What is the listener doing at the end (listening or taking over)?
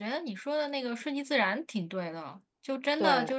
listening